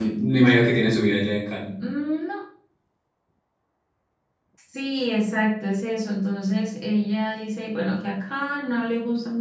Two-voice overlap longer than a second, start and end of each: none

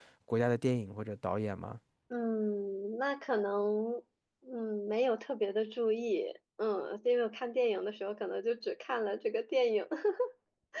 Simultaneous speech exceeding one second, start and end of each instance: none

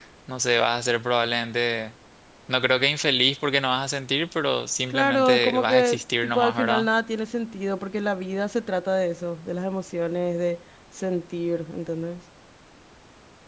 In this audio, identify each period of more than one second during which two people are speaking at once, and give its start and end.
4.9-6.9

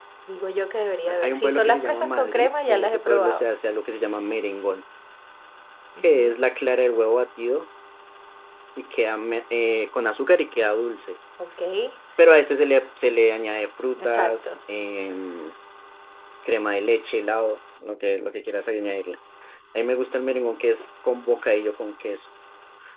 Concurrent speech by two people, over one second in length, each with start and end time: 1.1-3.4

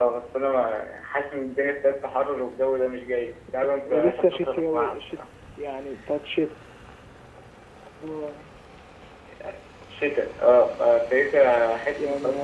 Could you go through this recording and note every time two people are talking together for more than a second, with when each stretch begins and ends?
3.9-5.1

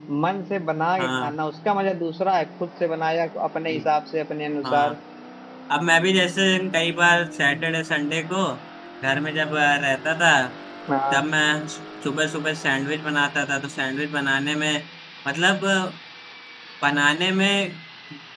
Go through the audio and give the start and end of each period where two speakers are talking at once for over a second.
none

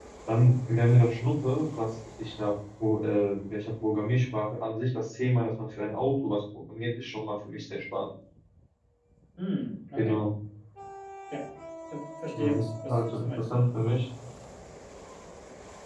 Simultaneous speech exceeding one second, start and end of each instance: 12.3-13.6

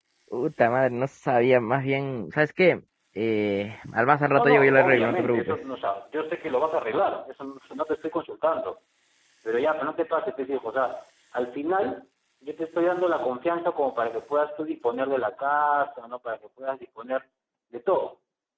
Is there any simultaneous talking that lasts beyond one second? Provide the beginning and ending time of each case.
4.3-5.6

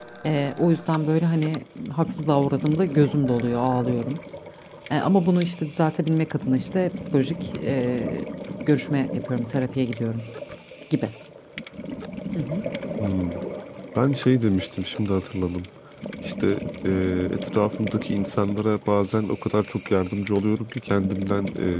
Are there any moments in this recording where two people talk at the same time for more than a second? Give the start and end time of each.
none

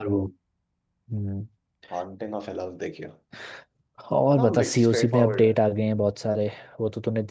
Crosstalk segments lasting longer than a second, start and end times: 4.4-5.6

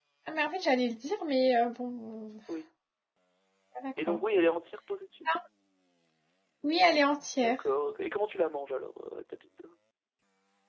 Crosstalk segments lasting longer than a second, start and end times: none

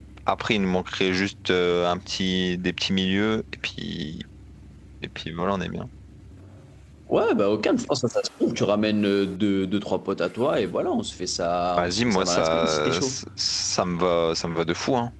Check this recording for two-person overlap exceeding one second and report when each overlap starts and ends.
11.8-13.2

